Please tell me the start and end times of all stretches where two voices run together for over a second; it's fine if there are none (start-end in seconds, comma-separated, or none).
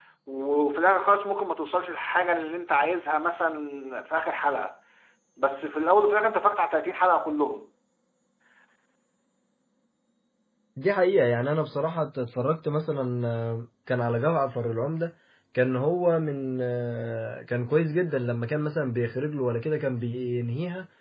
none